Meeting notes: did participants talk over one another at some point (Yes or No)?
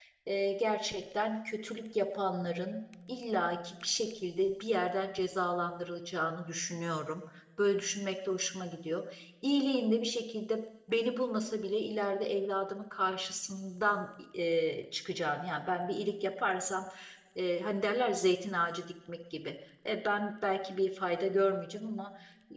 No